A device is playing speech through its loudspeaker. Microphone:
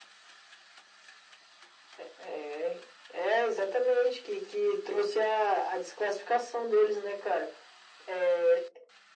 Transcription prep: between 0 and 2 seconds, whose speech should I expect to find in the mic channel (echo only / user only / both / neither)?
neither